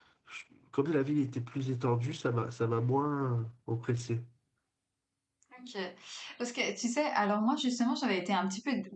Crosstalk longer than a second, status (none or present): none